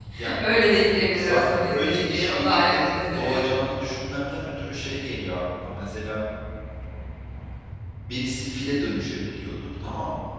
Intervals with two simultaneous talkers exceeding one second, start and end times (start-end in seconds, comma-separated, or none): 1.1-3.5